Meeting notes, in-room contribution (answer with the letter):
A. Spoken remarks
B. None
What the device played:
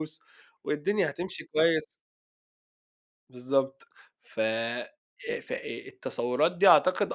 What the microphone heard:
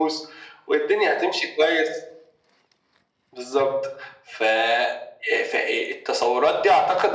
B